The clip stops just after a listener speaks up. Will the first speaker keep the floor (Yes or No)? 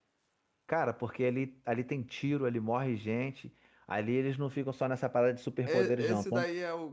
No